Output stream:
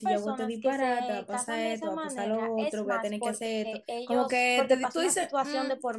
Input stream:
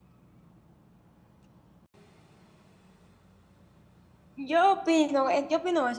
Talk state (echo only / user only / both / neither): user only